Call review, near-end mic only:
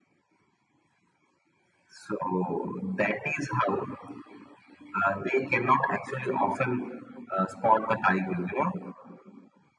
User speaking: No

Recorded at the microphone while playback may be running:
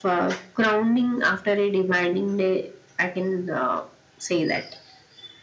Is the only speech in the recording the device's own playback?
Yes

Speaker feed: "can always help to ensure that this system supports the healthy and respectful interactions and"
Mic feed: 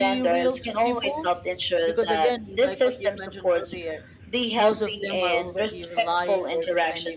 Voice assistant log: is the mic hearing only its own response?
No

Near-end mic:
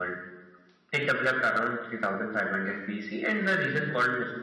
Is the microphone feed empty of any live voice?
Yes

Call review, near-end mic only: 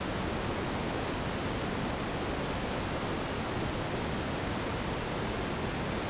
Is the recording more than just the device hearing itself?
No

